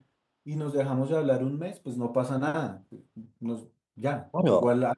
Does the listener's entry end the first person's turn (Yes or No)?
No